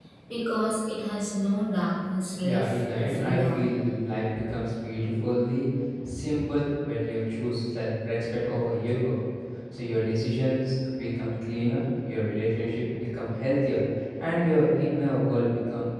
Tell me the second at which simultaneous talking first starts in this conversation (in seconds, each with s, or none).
2.4 s